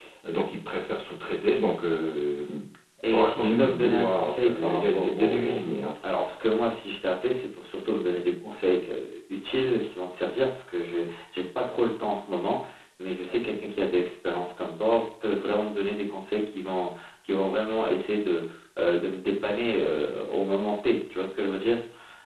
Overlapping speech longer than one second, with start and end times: 3.1-5.6

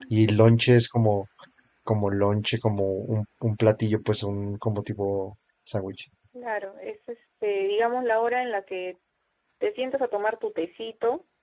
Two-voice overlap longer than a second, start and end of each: none

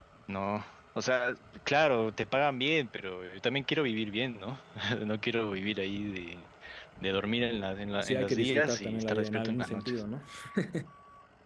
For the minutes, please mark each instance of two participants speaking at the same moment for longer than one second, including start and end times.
8.0-10.0

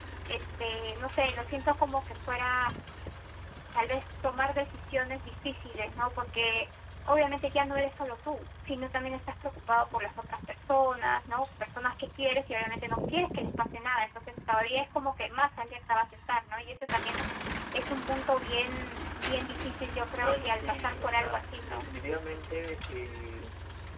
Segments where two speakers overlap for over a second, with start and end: 20.1-21.9

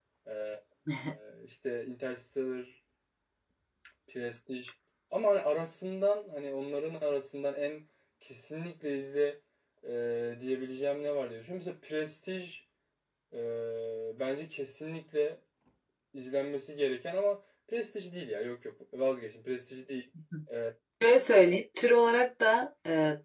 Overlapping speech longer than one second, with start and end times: none

